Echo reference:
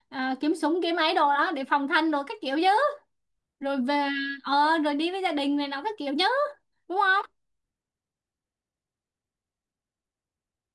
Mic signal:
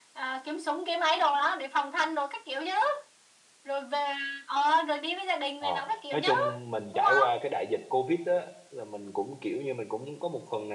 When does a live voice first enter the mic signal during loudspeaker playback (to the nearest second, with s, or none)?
6 s